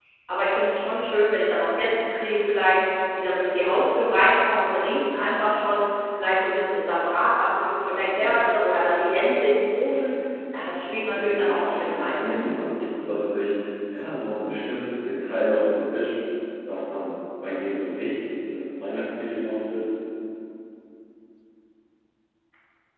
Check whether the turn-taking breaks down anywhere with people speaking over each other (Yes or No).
Yes